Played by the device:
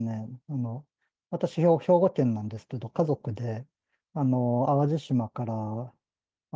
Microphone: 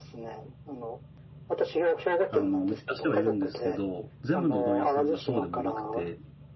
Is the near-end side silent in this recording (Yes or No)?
No